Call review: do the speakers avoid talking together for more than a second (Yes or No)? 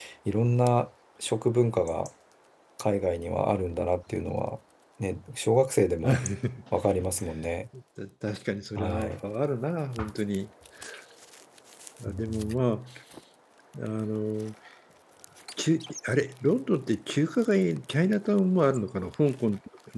Yes